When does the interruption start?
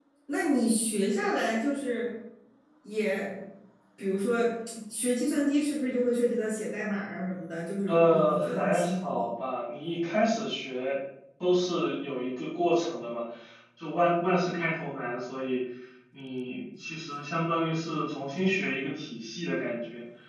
7.9 s

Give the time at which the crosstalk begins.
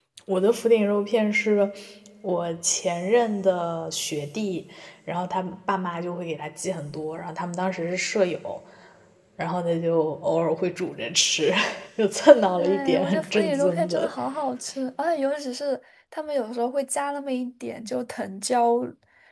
12.6 s

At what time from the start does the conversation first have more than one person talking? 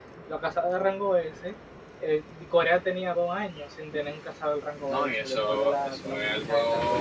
4.9 s

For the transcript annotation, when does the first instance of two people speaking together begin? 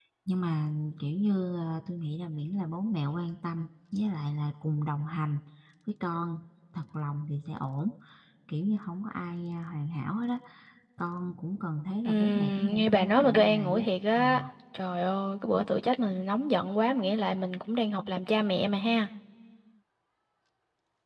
12.0 s

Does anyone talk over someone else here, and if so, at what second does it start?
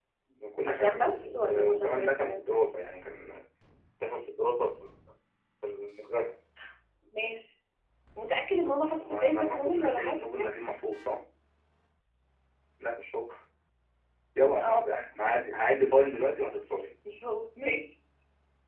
0.7 s

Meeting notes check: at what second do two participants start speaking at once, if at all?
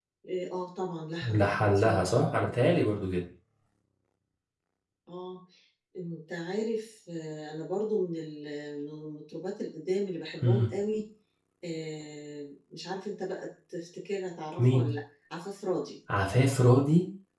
1.2 s

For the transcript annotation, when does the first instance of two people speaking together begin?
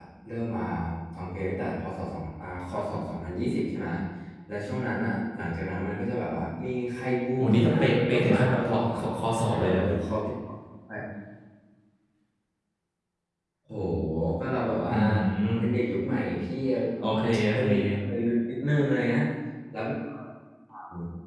7.4 s

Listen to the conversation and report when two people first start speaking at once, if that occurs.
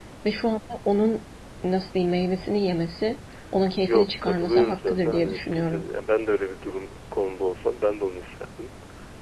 3.7 s

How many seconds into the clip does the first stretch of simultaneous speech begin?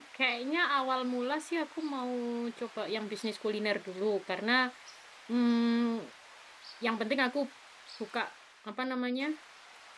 none

